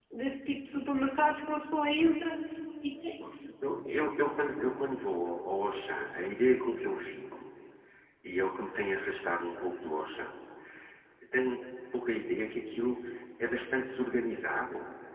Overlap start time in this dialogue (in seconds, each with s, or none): none